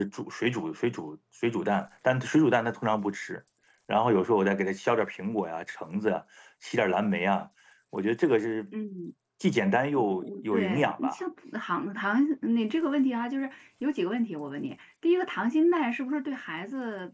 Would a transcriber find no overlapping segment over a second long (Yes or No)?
No